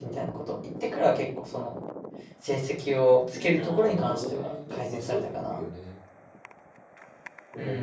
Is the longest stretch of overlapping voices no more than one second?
No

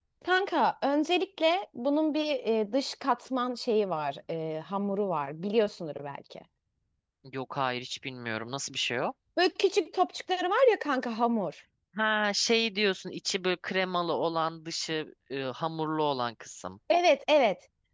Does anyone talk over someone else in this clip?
No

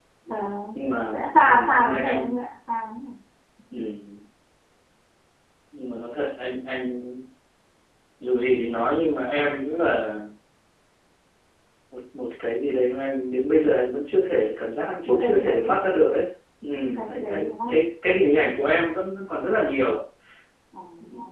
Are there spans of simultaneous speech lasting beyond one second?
Yes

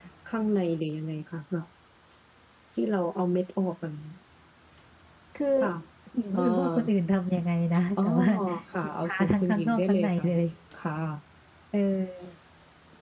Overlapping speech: Yes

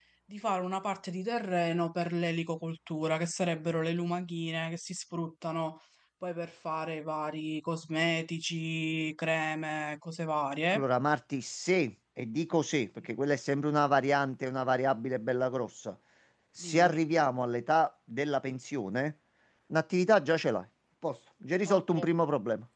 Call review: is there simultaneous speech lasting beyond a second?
No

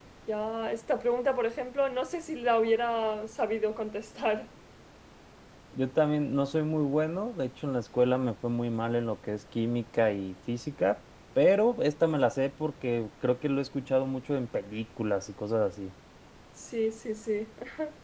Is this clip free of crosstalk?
Yes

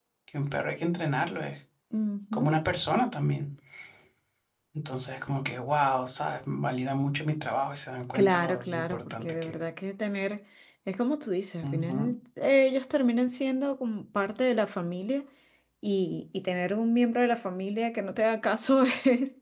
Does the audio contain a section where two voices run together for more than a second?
Yes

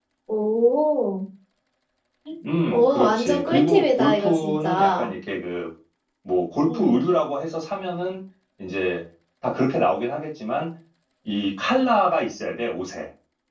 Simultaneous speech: Yes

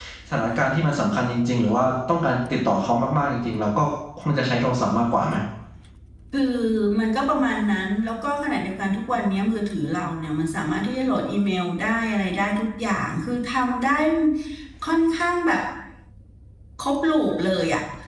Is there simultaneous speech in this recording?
No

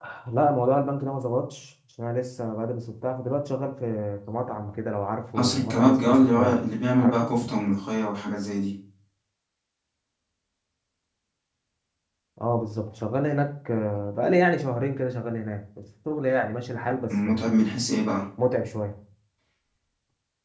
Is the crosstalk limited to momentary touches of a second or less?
No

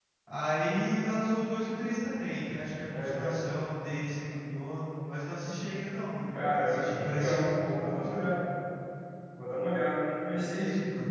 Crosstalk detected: Yes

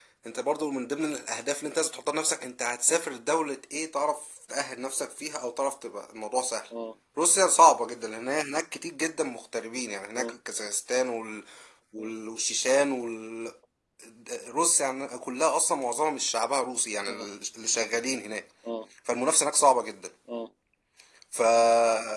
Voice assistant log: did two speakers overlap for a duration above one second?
No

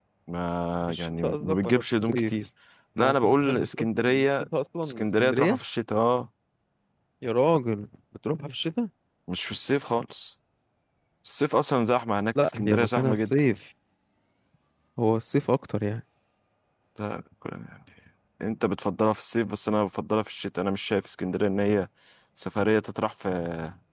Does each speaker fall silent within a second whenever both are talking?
No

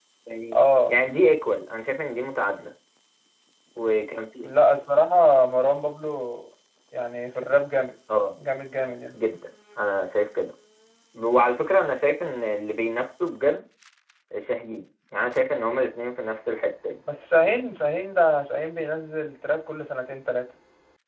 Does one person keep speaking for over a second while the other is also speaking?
No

